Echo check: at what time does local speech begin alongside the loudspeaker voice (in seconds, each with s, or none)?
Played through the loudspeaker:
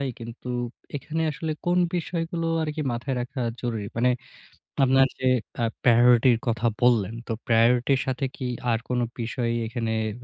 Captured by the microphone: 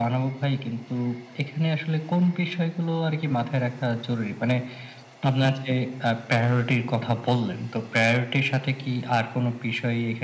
none